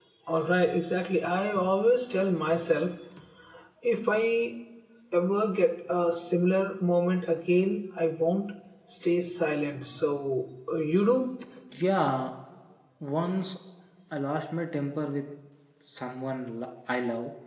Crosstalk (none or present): none